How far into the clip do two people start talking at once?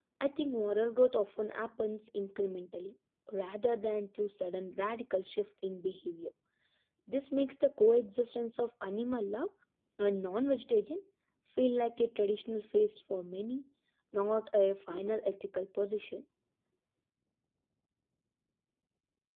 none

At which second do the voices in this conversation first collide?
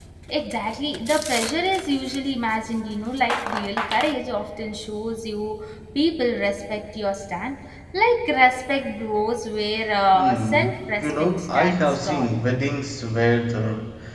10.1 s

